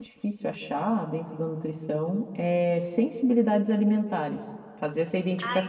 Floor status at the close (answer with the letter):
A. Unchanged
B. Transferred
B